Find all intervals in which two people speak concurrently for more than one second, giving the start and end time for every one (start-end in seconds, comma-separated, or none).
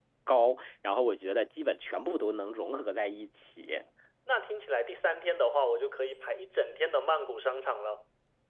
none